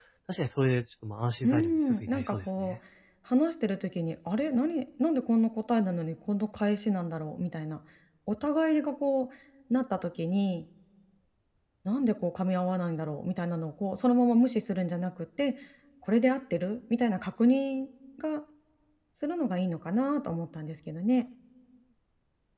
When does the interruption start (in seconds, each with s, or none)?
1.4 s